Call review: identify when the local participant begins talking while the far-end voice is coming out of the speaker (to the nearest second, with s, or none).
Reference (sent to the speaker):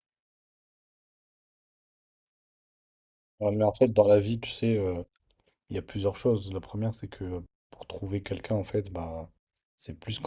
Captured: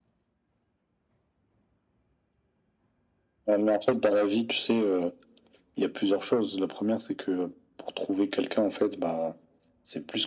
none